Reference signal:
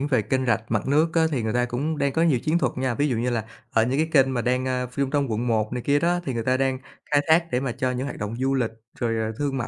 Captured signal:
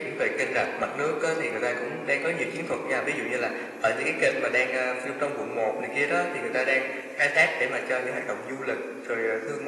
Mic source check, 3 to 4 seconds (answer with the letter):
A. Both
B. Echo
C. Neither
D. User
B